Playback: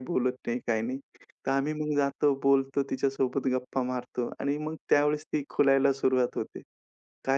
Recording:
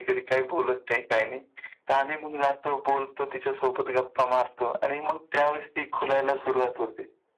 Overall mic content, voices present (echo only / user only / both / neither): echo only